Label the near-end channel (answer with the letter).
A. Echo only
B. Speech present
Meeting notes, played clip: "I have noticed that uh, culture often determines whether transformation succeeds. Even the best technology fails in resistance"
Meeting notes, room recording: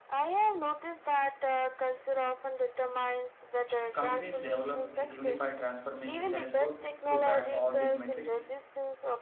B